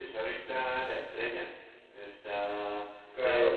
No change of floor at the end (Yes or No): No